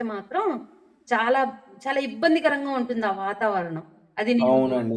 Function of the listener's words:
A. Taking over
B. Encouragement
A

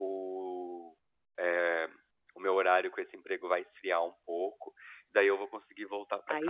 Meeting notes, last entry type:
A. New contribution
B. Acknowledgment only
A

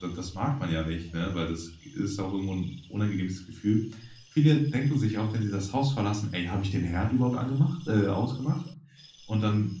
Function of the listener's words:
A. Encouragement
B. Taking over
A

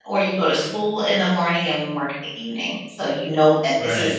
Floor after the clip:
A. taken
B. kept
B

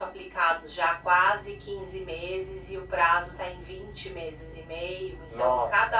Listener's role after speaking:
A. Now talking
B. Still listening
B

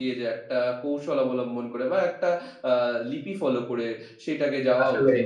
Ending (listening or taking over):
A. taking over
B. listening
B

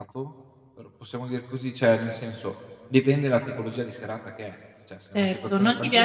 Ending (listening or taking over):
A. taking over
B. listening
A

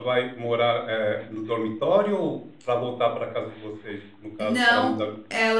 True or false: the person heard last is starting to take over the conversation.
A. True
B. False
A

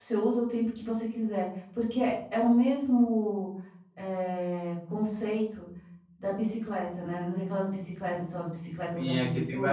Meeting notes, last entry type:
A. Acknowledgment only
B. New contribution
B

